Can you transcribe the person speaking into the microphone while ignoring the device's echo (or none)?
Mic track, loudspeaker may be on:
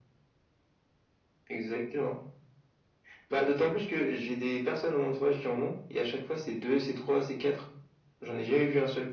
none